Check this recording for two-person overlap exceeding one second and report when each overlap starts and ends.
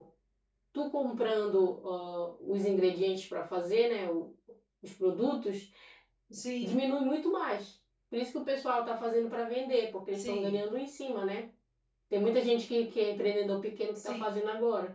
none

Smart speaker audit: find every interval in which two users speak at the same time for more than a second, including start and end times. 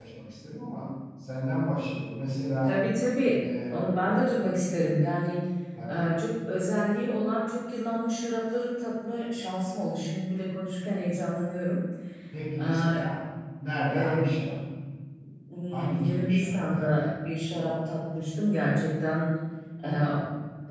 15.7-17.1

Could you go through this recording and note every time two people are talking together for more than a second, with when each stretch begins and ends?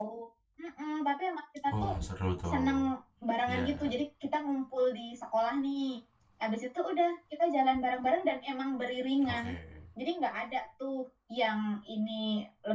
none

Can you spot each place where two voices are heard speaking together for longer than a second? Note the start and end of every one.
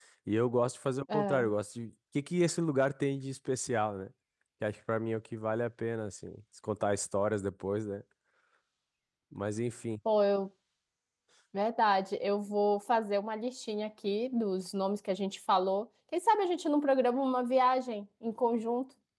none

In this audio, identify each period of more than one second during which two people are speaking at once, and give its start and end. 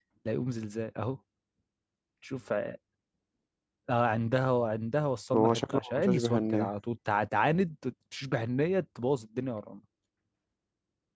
5.3-6.7

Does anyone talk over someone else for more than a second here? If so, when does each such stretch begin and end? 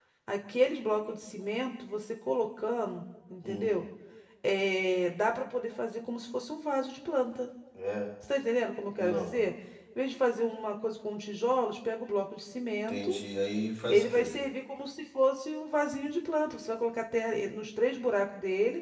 none

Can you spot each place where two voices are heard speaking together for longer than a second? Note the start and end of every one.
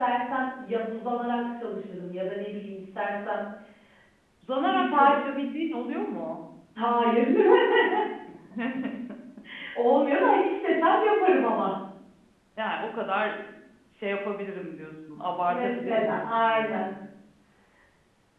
15.5-16.9

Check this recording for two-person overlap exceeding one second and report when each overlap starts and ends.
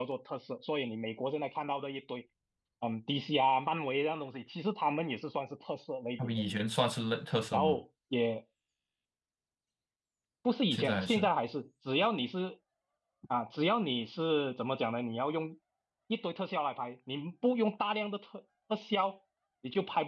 none

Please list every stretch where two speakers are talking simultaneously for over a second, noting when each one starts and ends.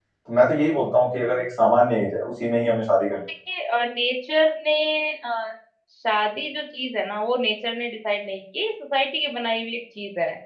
none

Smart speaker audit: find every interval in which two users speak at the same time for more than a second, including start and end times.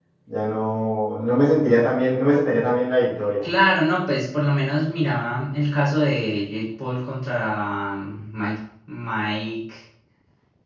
none

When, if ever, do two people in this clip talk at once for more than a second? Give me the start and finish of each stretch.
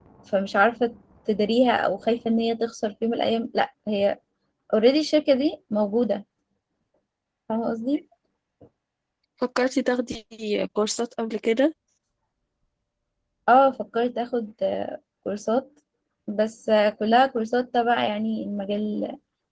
none

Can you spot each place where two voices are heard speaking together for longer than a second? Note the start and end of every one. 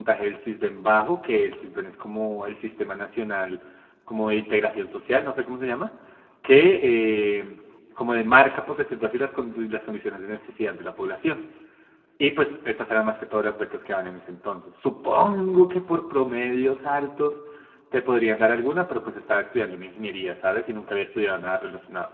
none

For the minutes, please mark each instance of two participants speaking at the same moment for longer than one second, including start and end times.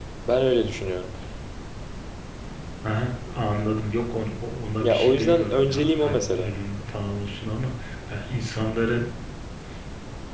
4.8-6.5

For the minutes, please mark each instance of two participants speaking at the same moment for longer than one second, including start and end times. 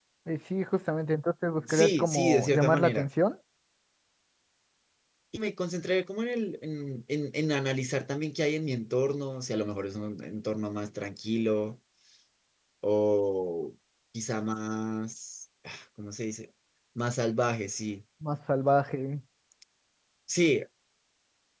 1.7-3.1

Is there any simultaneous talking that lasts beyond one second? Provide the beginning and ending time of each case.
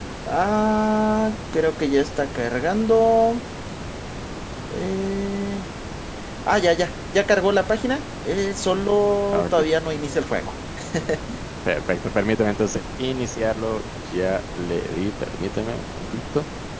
none

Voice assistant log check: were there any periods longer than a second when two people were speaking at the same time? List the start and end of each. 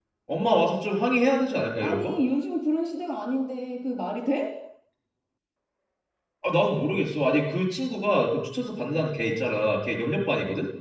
none

